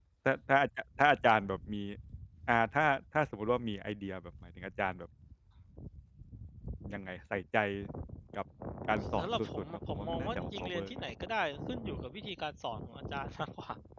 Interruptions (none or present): present